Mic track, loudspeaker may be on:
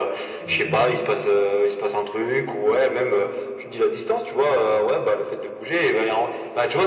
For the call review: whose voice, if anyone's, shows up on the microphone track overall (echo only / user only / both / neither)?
both